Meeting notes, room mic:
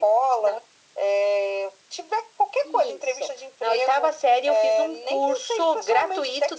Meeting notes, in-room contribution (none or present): none